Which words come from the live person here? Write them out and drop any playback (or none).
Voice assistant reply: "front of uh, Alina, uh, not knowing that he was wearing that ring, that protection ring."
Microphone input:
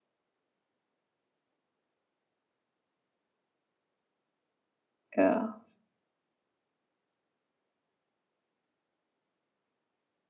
Yeah.